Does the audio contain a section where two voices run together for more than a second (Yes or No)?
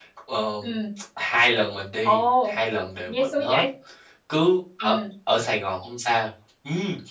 No